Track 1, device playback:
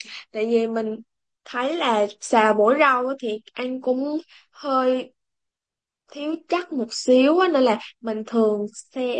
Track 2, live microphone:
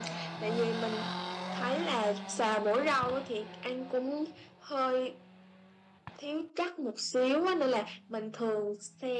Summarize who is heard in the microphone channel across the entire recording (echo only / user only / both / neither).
echo only